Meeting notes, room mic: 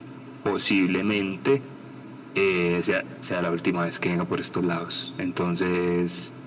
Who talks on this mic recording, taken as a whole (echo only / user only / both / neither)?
echo only